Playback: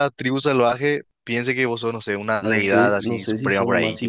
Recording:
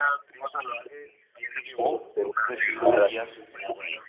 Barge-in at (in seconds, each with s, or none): 1.8 s